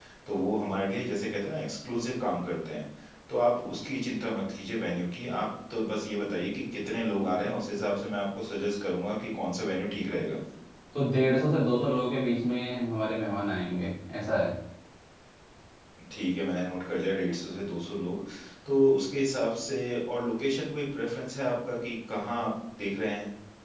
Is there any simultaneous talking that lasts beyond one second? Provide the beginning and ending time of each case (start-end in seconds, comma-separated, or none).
none